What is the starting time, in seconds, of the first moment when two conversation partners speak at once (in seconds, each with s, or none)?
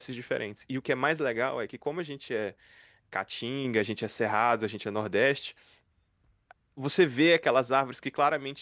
none